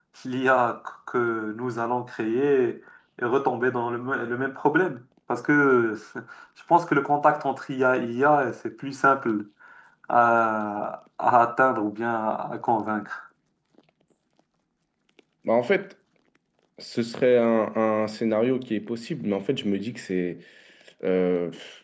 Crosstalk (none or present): none